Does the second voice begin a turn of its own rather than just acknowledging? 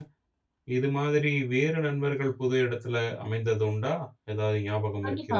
Yes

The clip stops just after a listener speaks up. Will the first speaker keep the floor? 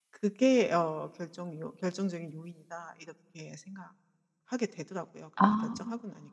No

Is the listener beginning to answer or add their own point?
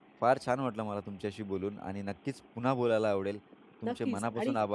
Yes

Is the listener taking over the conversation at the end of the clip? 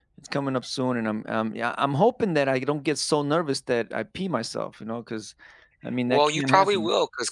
Yes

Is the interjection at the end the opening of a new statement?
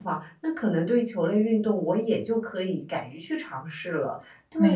Yes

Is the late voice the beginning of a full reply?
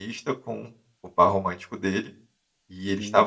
No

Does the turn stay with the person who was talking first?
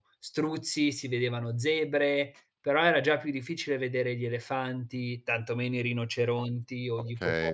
No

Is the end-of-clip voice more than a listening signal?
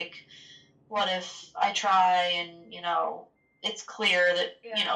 No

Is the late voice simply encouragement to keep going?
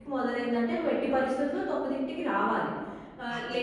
Yes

